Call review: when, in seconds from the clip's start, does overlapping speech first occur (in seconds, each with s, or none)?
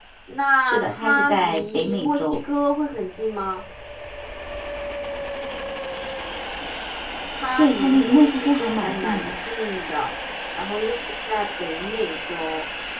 0.6 s